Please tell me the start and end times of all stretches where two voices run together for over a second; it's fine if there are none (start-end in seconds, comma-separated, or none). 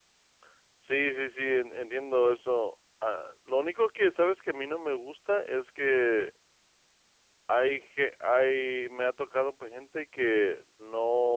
none